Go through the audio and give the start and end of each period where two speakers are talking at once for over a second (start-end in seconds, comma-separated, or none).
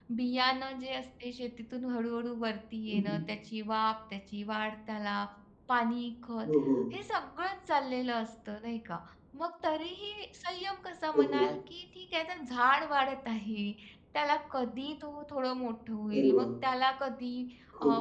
none